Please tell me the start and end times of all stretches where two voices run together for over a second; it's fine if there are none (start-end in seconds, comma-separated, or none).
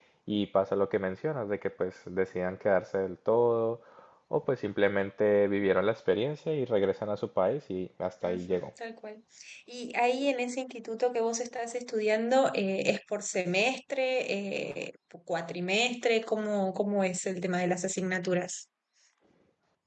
none